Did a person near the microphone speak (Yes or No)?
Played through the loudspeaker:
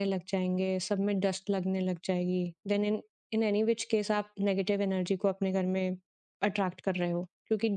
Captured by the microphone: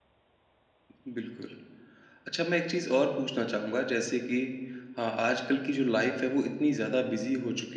Yes